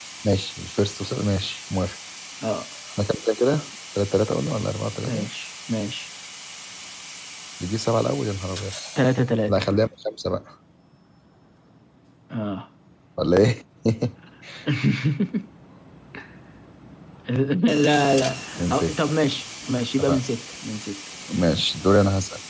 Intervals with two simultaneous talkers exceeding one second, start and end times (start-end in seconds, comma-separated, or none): none